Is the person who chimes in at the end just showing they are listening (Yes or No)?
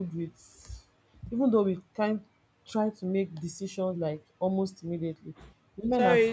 No